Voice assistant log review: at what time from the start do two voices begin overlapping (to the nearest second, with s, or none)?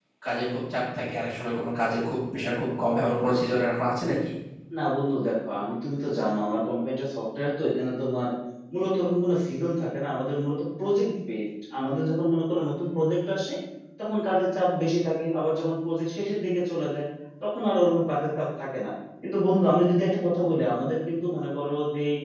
none